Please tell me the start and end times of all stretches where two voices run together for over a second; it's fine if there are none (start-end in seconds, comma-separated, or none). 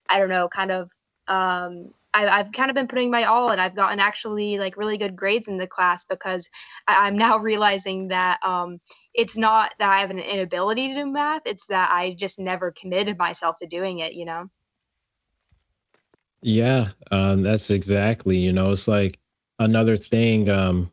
none